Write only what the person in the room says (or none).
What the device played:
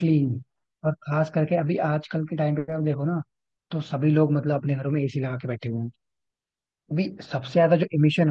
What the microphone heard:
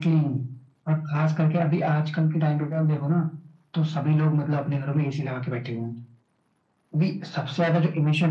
none